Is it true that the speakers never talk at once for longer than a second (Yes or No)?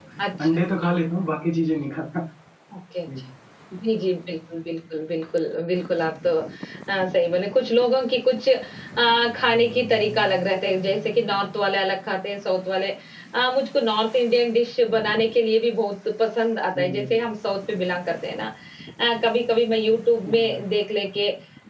Yes